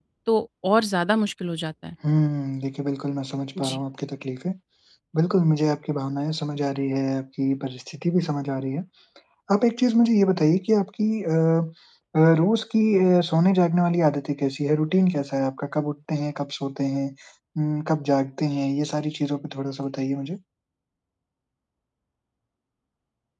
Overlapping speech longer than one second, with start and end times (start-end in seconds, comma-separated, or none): none